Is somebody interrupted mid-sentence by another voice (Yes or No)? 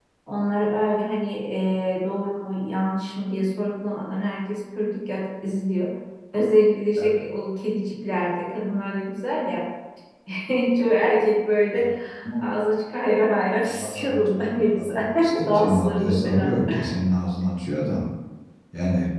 Yes